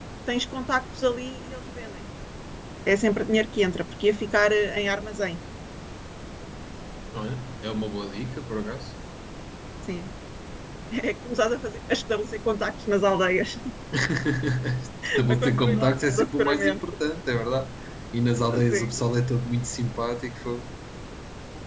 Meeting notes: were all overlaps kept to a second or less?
No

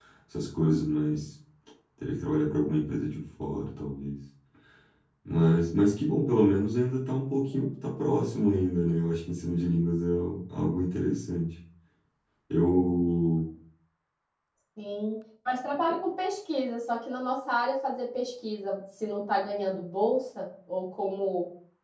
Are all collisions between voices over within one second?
Yes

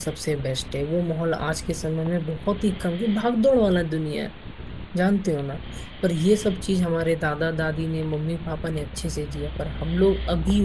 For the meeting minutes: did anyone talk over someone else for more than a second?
No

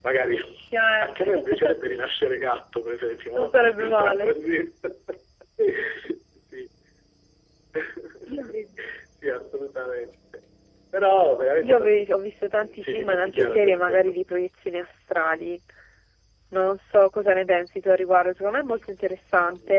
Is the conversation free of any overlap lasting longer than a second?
No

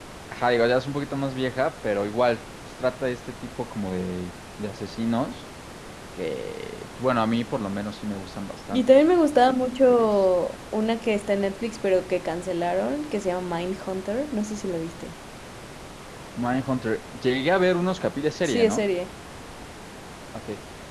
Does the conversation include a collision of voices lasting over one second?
No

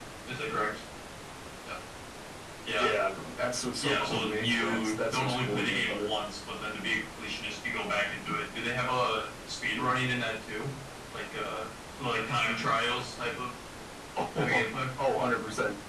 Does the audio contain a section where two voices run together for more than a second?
Yes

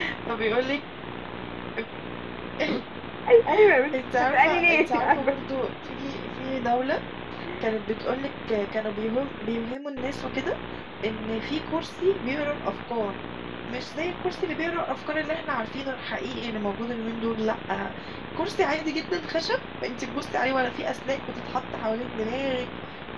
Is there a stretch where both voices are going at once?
Yes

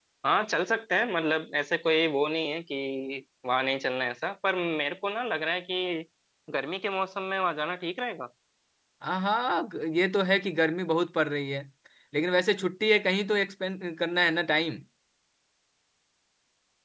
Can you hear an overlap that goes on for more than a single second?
No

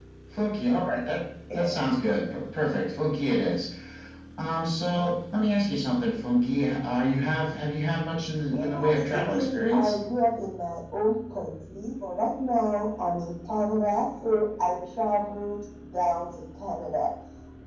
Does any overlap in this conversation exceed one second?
Yes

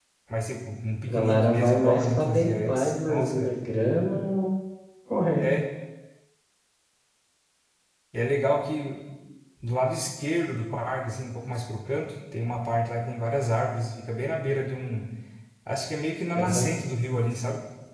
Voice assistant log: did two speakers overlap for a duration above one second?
Yes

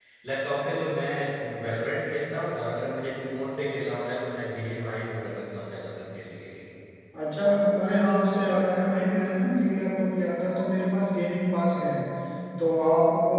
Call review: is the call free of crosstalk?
Yes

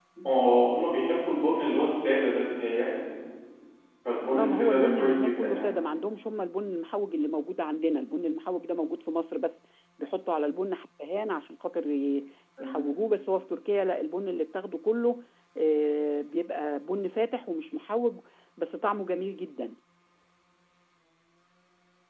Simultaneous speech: Yes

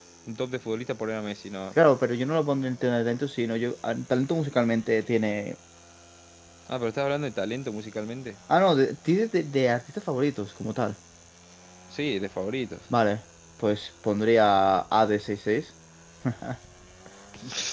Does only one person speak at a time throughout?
Yes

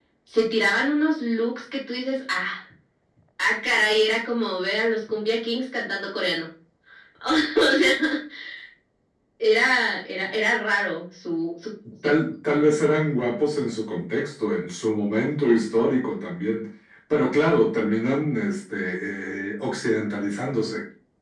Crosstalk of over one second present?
No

